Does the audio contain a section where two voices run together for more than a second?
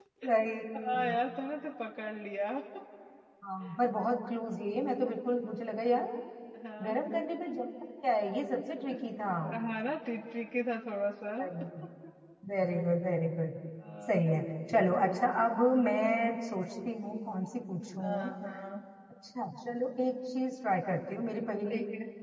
No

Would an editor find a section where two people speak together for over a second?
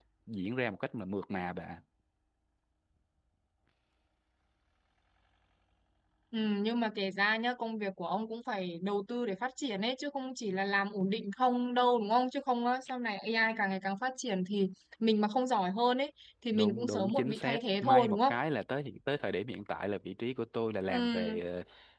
Yes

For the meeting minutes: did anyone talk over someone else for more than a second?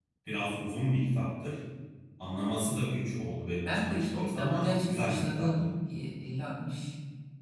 Yes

